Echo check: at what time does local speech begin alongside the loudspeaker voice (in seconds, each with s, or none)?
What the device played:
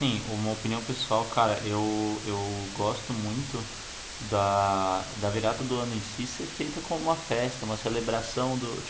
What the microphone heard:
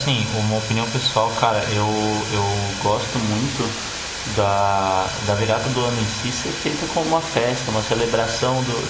none